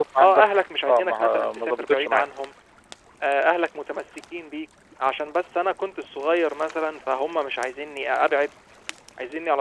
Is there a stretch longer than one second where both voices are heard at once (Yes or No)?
Yes